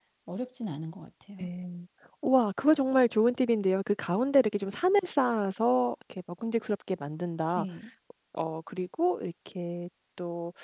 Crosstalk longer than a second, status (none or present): none